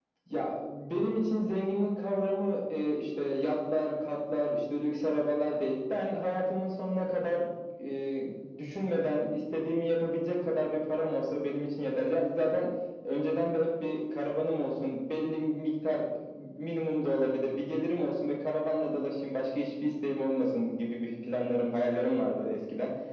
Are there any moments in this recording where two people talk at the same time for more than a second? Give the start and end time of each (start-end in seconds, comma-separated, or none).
none